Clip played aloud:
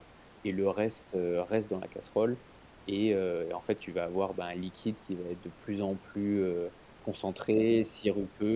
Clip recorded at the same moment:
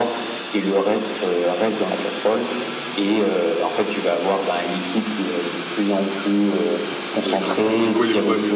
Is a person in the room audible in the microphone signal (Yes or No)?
Yes